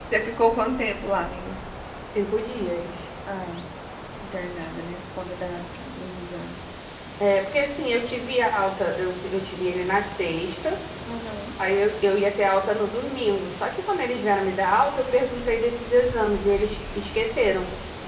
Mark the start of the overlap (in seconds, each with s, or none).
none